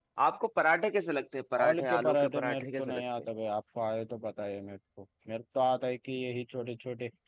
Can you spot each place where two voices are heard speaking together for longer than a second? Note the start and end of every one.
1.6-3.0

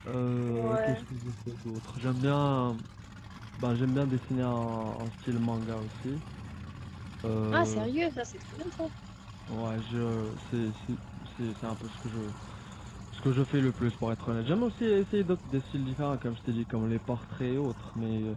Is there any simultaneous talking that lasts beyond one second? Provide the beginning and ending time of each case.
none

